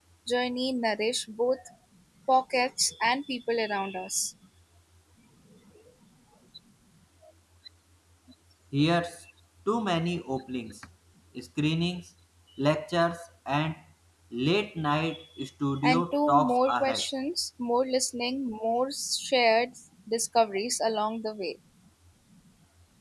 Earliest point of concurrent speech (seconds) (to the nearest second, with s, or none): 16 s